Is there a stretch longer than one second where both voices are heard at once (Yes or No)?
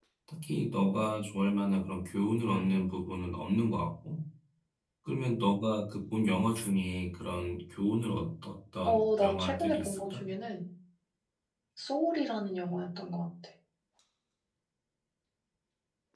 Yes